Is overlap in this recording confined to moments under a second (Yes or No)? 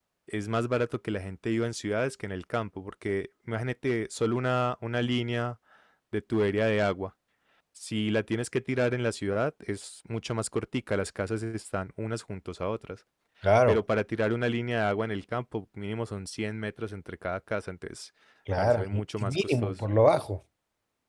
No